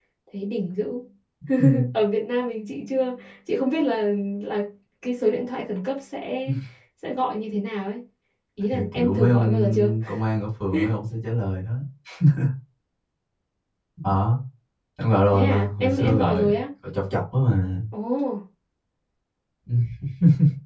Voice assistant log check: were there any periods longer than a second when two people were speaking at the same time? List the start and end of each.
8.7-9.9, 15.3-16.6

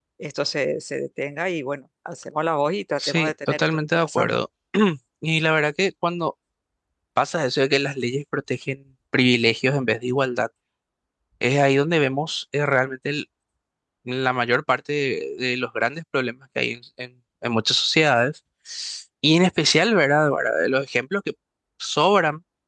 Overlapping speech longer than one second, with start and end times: 3.0-4.4

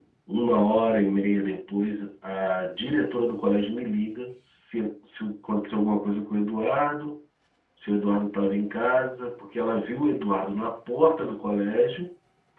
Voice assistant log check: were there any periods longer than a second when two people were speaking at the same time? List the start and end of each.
none

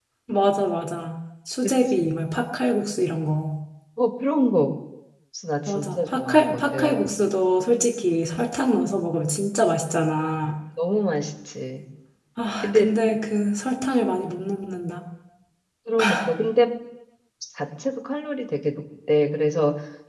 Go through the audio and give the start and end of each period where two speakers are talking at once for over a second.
5.7-7.1

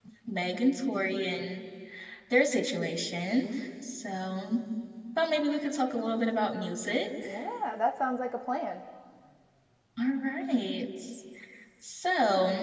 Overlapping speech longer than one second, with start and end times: none

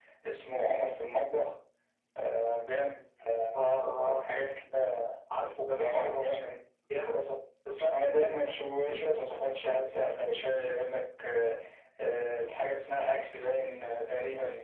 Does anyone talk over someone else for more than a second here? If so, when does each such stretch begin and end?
none

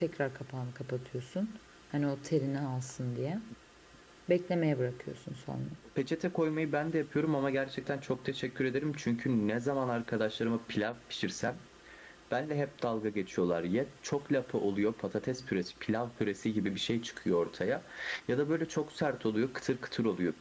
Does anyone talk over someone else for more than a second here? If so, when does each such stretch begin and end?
none

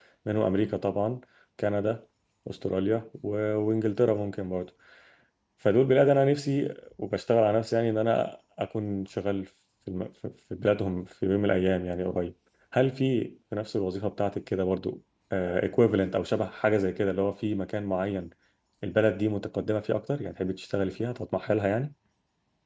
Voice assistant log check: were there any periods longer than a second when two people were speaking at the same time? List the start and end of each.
none

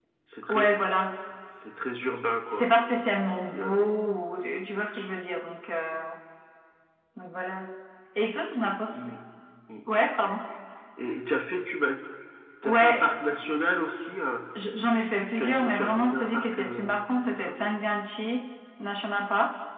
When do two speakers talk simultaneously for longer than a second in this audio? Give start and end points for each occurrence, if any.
15.3-16.9

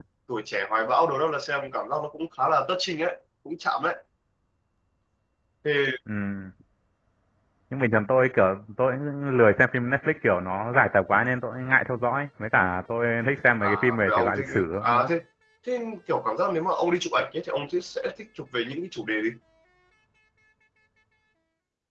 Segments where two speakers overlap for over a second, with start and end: 13.6-15.1

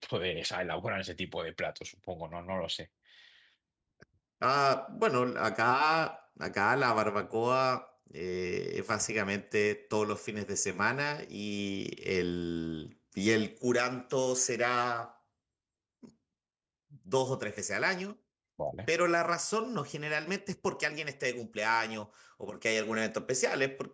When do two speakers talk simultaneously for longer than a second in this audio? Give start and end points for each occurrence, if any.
none

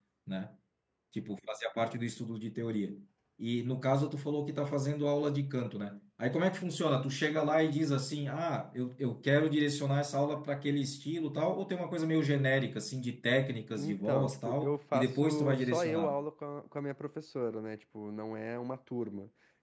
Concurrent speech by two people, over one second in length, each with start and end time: 13.8-16.2

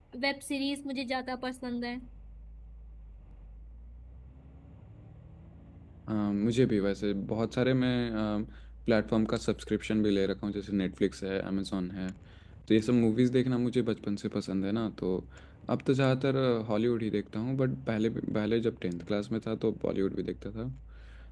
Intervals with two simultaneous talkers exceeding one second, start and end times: none

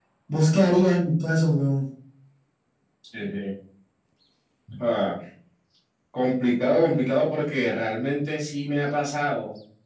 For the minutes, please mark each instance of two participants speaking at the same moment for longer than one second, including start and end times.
none

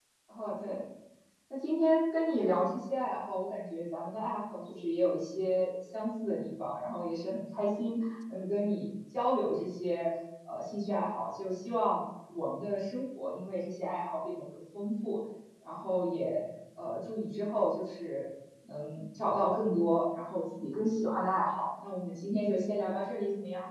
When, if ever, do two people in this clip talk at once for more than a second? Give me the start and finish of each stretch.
none

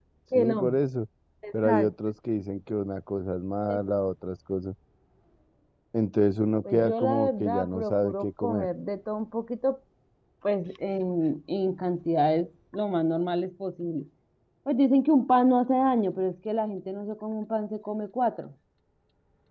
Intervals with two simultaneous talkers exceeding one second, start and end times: 6.7-8.7

